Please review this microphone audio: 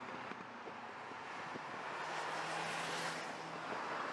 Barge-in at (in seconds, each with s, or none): none